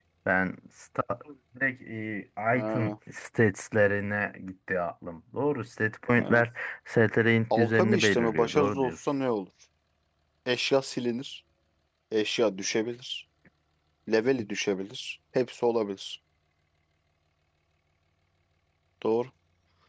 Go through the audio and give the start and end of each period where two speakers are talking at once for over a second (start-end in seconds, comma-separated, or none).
7.6-9.0